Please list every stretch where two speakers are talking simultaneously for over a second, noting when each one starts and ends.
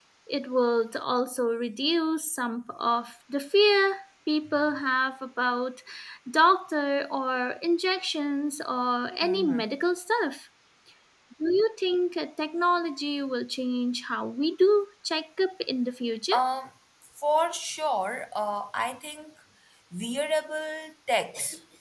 none

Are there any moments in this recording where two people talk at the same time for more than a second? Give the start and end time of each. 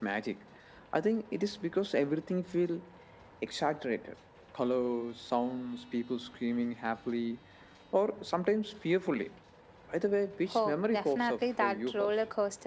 10.5-12.1

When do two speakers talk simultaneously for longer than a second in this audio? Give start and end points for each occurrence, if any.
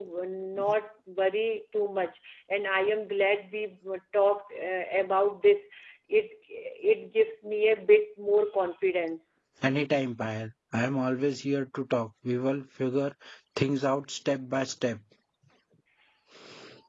none

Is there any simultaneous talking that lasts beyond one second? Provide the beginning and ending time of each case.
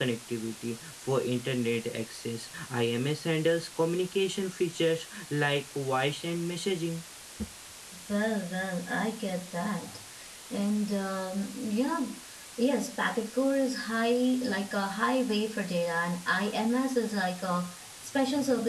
none

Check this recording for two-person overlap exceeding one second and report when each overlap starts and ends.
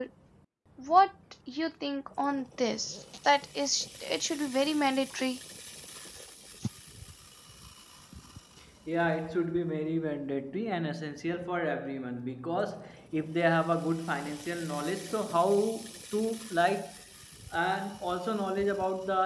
none

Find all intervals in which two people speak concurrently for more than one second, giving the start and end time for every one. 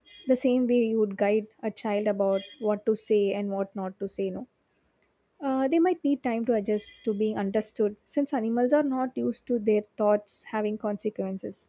none

